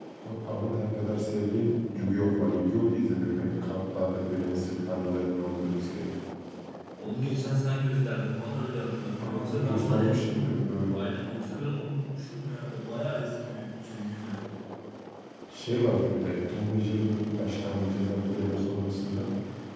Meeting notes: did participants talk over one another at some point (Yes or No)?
Yes